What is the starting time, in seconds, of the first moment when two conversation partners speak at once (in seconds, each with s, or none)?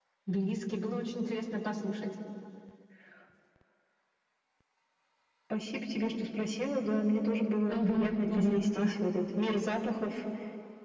7.7 s